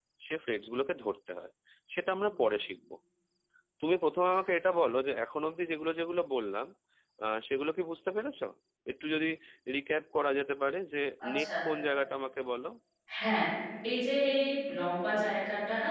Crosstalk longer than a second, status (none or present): none